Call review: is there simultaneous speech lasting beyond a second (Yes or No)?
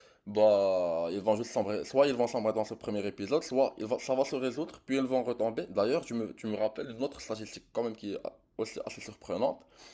No